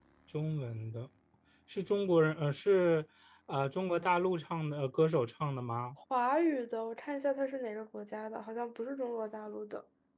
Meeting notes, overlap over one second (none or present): none